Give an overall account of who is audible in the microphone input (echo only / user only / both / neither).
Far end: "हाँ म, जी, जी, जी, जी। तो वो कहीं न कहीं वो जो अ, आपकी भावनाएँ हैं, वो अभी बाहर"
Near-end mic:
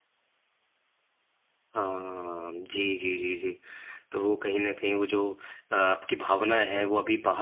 echo only